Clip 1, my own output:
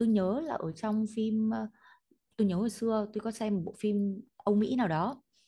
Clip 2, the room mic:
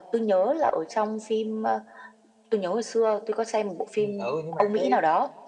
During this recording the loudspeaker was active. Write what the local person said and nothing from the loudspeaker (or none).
ừ ừ, nhưng mà cái